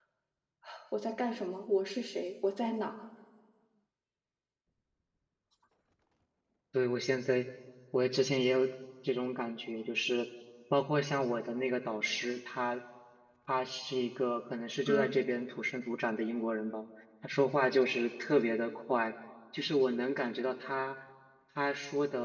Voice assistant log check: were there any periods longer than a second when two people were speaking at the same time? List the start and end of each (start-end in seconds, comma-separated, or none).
none